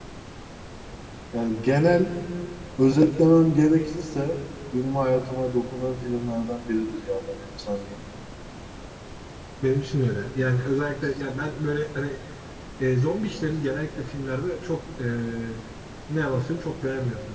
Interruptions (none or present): none